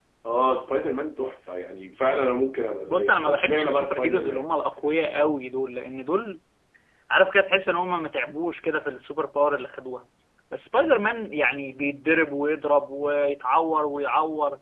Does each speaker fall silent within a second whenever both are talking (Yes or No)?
No